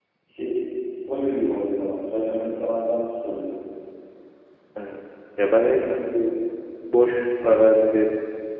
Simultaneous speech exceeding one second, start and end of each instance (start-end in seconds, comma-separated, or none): none